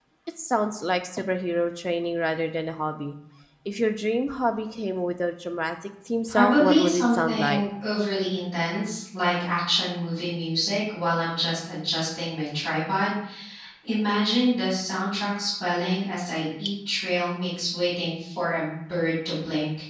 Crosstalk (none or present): present